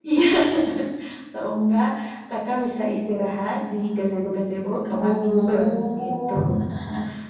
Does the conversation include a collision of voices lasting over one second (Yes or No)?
Yes